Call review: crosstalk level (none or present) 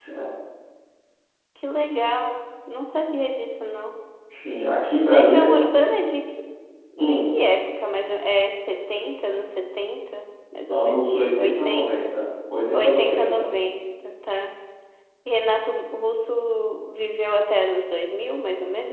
present